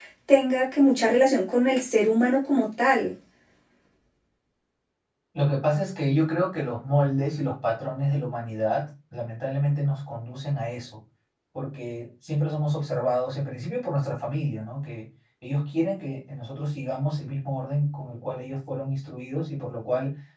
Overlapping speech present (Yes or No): No